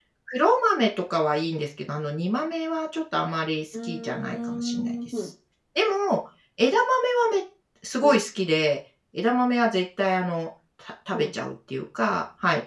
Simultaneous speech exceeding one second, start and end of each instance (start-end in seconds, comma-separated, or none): 3.8-5.3